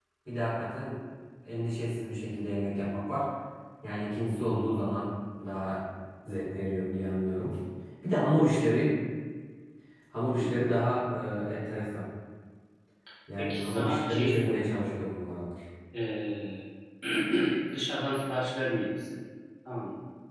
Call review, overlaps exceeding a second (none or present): present